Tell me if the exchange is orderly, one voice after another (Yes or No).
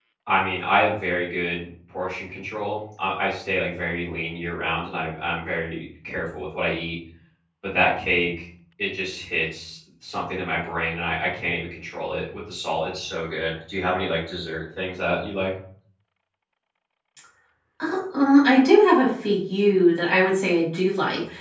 Yes